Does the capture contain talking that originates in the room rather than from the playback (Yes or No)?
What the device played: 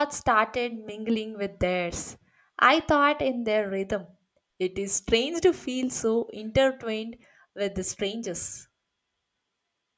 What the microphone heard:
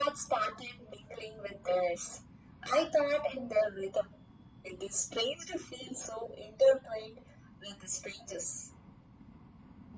No